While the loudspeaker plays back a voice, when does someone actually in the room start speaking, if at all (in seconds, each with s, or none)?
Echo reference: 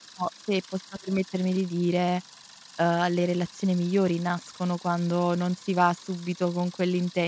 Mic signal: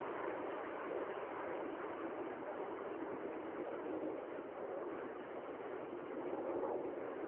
none